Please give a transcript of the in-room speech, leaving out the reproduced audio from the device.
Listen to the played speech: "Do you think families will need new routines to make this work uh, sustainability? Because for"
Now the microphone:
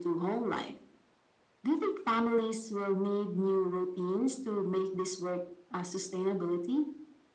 none

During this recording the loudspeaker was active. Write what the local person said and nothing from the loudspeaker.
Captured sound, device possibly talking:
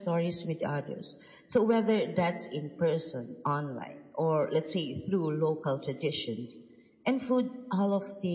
none

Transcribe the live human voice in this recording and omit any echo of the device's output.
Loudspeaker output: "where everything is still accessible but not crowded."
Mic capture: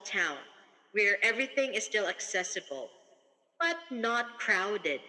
none

